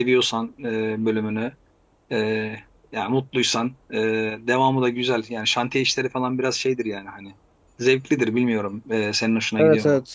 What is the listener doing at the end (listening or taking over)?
taking over